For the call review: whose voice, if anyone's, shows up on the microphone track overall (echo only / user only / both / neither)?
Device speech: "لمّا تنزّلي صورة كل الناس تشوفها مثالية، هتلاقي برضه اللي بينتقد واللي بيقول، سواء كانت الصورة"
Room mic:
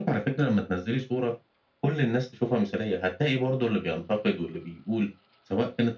echo only